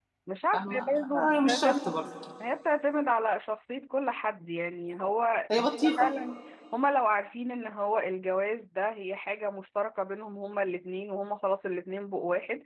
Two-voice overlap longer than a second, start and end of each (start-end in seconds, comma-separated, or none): 0.5-2.0